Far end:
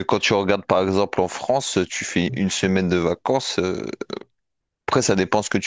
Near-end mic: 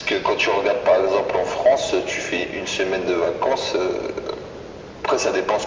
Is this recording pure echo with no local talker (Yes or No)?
Yes